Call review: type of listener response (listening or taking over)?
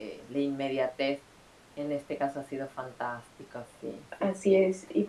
taking over